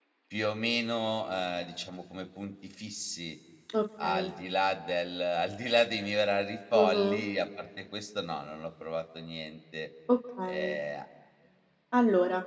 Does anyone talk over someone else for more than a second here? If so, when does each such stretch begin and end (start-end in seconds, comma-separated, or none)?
none